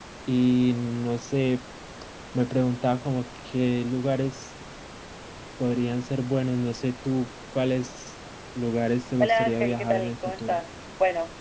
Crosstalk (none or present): present